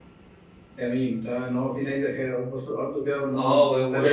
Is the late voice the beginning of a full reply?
Yes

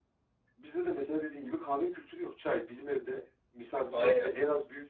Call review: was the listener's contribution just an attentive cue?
Yes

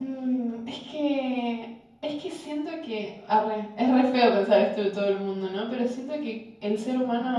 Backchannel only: Yes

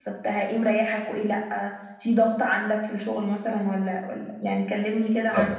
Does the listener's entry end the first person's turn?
Yes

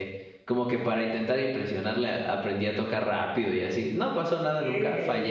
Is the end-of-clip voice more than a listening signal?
Yes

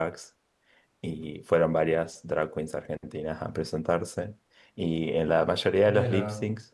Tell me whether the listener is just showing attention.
Yes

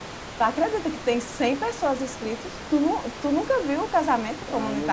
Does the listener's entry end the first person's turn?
Yes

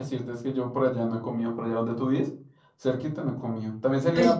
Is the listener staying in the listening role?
Yes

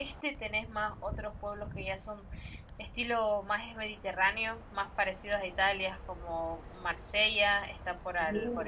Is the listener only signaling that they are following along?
Yes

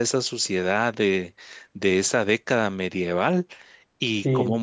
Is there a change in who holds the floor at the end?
No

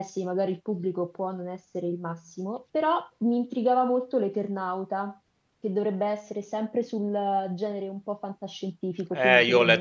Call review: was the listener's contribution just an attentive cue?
No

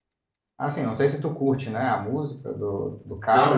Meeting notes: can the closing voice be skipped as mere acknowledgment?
No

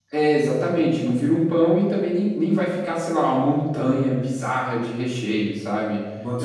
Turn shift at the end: No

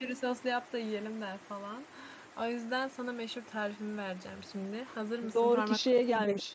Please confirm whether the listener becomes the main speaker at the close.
Yes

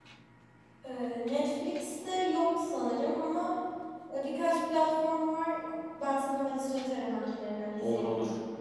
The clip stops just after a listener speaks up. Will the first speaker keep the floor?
No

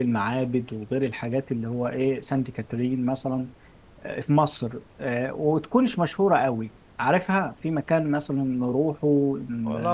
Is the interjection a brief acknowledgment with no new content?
No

